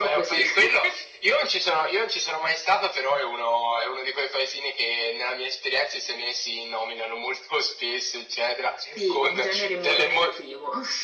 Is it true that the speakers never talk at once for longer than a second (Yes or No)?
No